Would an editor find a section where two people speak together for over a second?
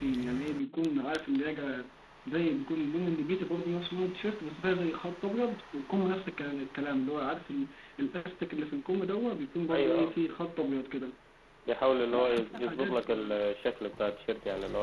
Yes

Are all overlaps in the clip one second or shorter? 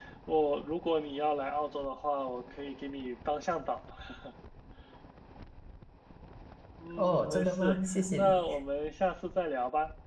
No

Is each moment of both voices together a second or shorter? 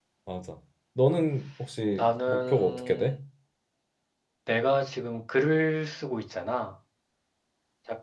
No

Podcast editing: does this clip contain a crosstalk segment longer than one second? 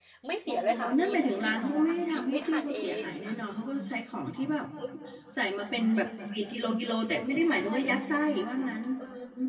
Yes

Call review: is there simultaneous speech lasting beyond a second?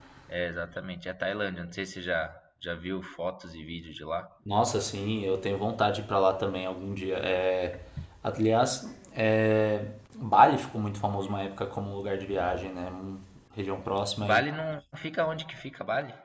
No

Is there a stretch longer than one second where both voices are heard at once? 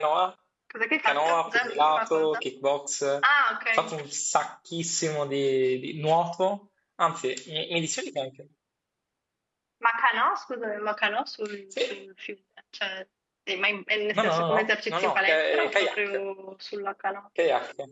Yes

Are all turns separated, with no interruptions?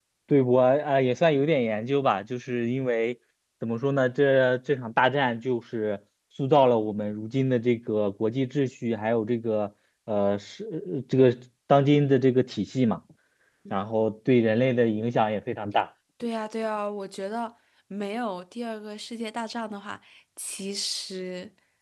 Yes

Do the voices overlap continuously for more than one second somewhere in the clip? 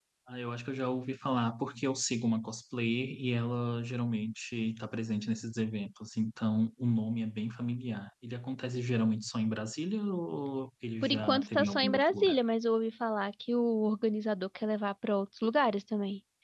Yes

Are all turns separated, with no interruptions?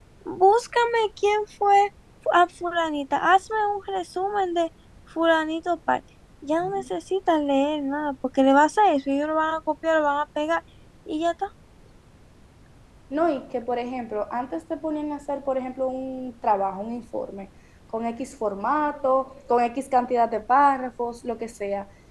Yes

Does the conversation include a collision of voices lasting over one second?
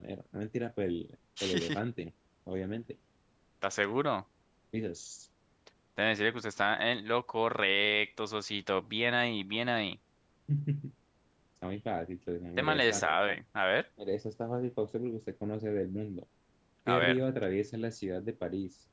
No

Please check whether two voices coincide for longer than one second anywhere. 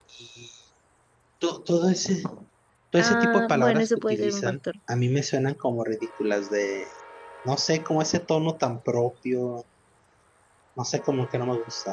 Yes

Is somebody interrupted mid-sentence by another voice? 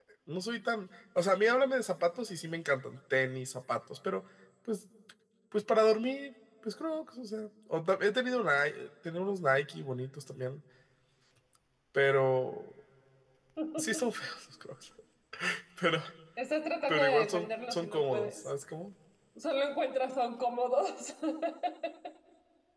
Yes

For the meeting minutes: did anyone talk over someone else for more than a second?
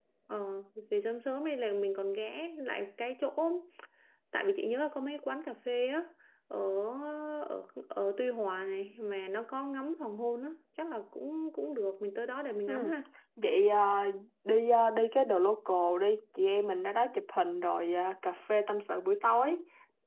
No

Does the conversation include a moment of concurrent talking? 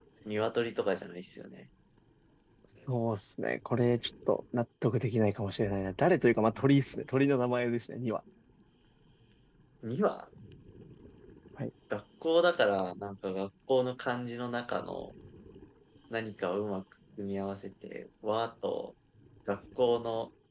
No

